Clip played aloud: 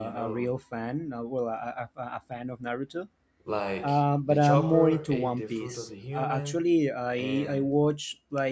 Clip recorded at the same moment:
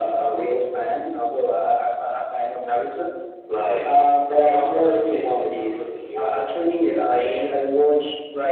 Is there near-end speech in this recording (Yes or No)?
No